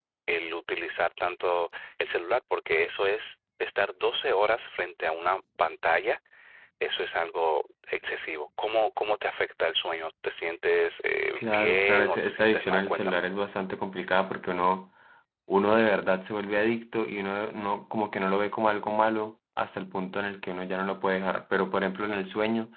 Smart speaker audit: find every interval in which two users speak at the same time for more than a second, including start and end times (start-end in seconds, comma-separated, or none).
11.4-13.2